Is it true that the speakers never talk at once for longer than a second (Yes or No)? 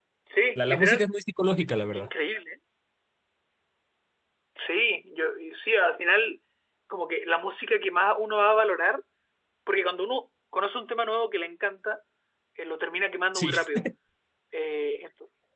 Yes